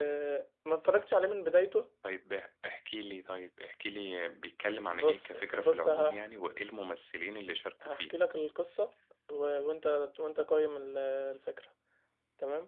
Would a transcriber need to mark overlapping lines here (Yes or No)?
Yes